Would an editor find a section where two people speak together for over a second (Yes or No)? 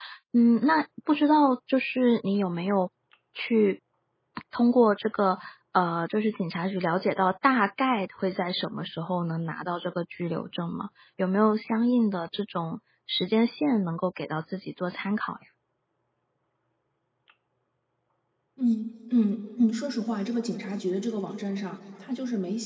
No